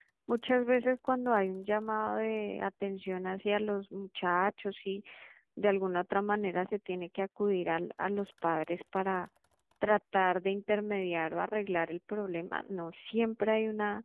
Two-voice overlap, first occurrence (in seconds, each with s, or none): none